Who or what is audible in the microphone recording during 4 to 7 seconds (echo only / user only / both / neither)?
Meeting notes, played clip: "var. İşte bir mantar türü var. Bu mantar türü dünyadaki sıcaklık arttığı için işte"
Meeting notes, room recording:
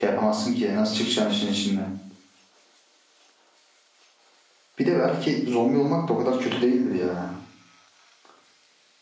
user only